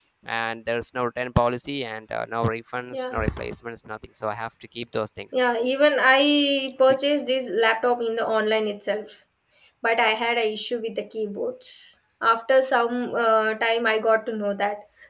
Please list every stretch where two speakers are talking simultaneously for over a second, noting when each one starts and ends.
none

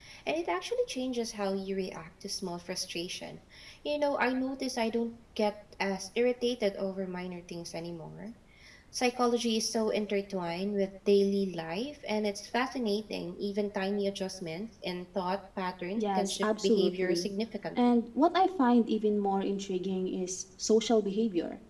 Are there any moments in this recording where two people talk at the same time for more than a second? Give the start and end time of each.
16.0-17.3

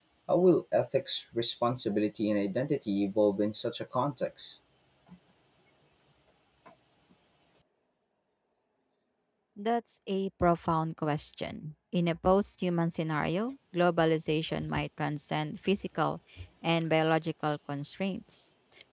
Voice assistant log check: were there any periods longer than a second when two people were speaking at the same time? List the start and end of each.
none

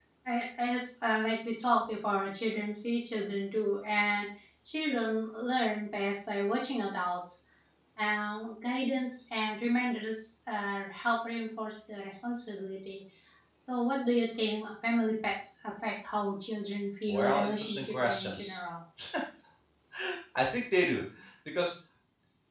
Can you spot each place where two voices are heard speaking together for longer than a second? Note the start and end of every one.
17.1-18.6

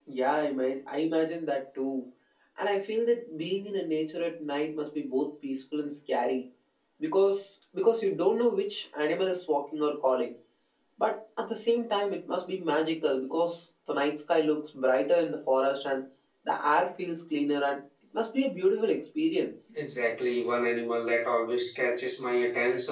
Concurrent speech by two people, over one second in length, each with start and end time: none

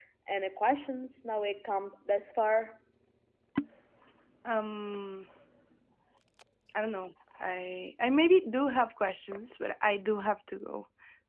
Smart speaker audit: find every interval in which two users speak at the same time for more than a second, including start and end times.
none

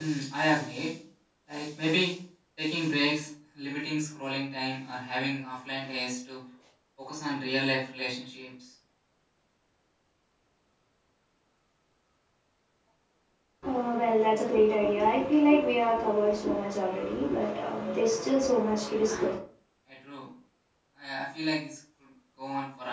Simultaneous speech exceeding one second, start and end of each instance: none

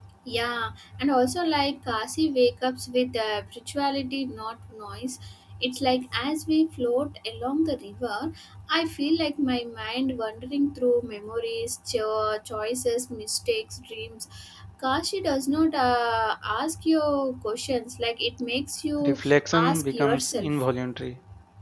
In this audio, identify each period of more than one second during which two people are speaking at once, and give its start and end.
19.1-20.7

